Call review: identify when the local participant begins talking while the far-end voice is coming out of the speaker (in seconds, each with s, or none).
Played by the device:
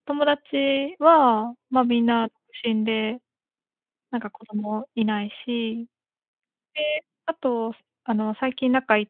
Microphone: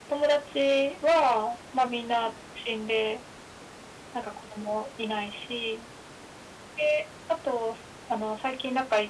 none